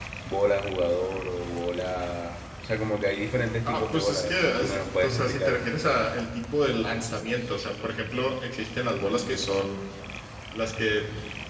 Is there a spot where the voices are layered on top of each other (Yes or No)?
Yes